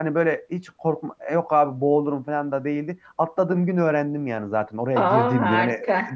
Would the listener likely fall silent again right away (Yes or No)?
Yes